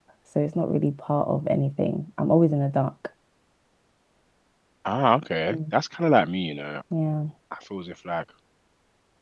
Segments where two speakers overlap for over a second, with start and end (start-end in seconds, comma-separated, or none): none